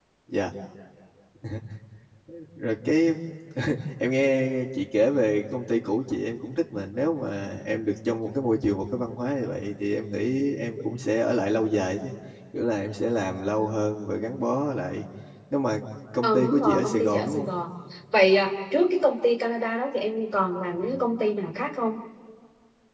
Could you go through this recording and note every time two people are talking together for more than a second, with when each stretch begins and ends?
16.2-17.5

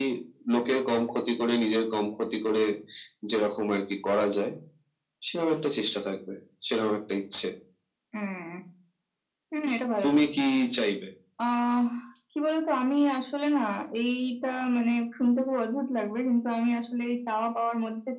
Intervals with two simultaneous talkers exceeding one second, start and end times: none

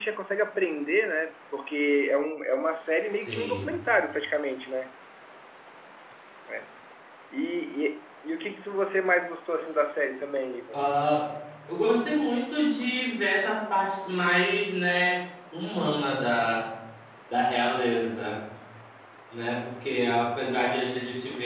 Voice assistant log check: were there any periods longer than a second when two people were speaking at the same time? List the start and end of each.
none

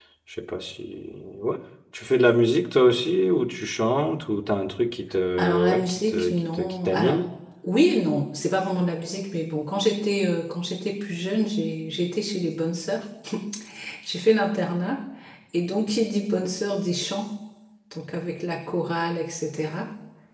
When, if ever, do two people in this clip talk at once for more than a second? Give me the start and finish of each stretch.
5.4-7.2

